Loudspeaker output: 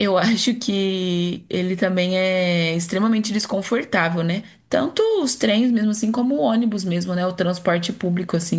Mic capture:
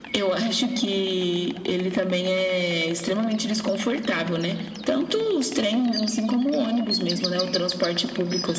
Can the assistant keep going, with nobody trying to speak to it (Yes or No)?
Yes